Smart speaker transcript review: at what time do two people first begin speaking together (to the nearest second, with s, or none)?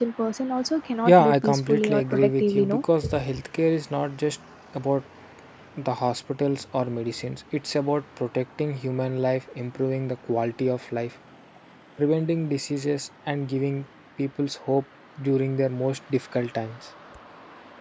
1 s